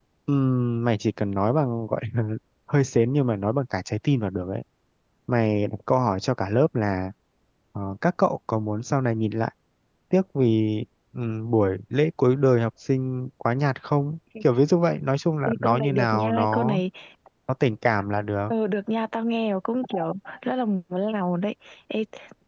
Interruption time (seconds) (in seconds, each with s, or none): 15.5 s